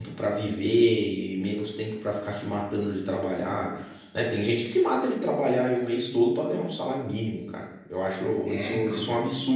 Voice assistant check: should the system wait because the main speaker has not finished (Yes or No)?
Yes